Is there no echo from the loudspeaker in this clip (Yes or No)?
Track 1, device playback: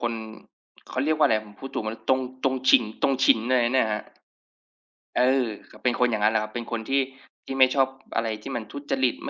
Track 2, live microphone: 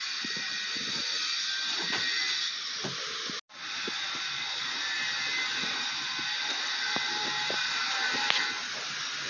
Yes